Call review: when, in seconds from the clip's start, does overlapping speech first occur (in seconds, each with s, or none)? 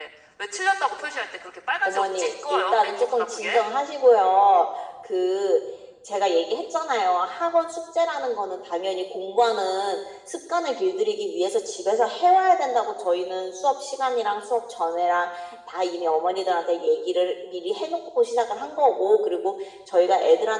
1.9 s